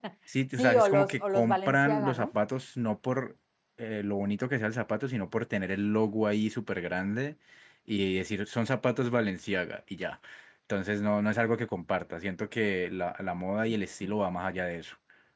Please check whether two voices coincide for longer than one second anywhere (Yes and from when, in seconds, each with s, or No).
Yes, from 0.6 s